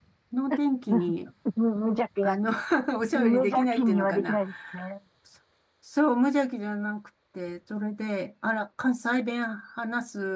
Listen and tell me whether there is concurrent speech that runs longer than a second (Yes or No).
Yes